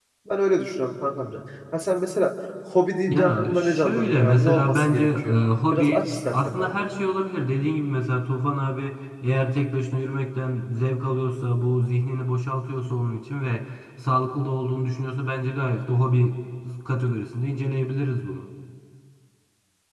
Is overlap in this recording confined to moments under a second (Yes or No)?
No